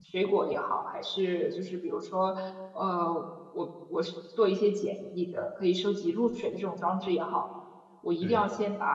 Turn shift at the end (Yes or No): No